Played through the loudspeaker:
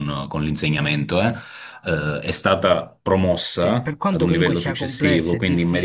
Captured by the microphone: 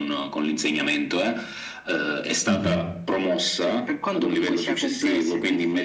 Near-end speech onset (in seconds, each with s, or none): 2.5 s